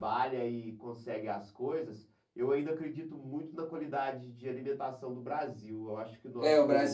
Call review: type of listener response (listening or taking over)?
taking over